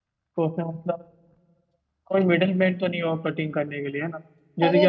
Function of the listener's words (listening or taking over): taking over